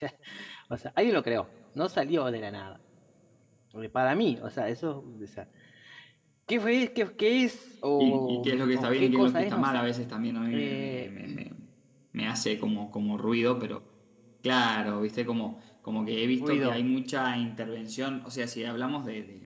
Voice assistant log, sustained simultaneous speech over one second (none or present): present